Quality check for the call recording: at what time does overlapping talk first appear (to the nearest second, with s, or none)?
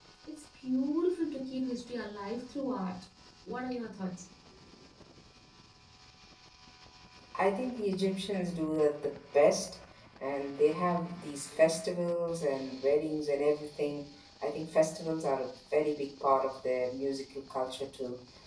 none